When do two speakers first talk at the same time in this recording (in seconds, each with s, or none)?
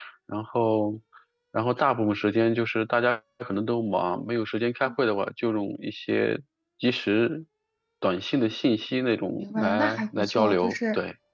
9.4 s